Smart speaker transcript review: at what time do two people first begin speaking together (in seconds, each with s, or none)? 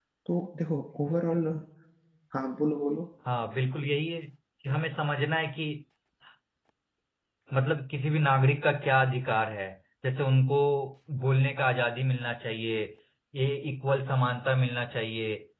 none